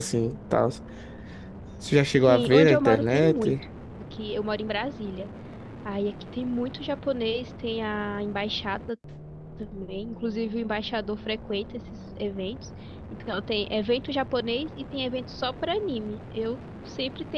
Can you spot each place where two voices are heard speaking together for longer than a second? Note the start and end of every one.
2.2-3.5

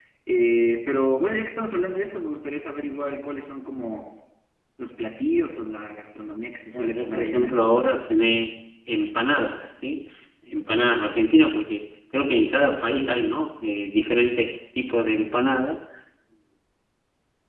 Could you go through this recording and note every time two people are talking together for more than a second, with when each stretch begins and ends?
6.7-8.0

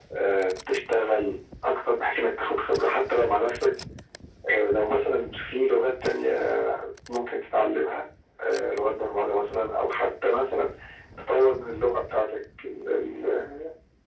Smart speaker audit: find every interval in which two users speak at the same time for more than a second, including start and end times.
none

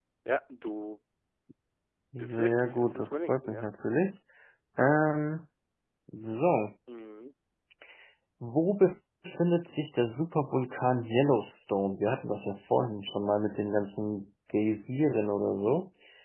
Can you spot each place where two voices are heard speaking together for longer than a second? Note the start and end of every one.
2.2-3.6

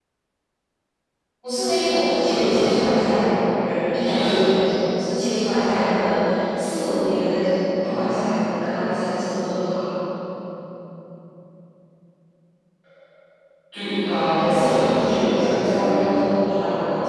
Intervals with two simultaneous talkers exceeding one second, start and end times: 14.5-15.9

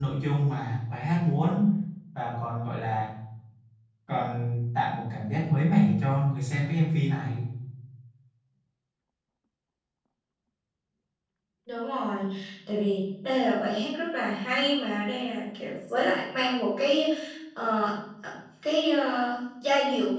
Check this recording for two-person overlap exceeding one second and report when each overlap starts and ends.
none

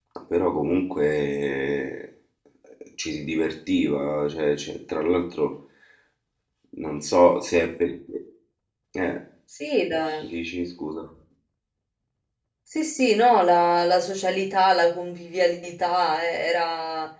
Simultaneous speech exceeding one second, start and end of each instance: none

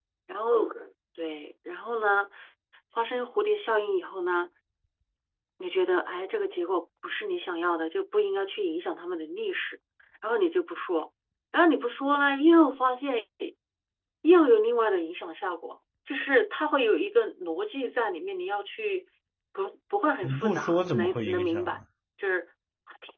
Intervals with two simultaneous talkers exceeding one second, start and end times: 20.2-21.8

